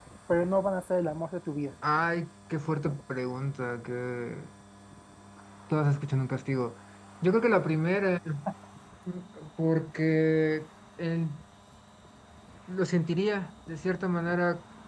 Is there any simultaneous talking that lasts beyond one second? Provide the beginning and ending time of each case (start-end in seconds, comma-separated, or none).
none